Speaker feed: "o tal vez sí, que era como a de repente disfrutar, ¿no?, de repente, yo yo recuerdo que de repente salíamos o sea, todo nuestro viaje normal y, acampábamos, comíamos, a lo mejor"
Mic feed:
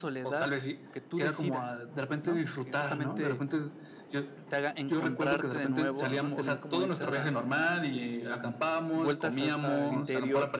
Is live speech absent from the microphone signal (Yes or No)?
No